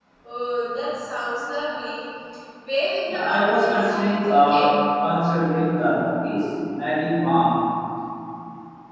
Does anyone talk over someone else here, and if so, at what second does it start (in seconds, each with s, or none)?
3.1 s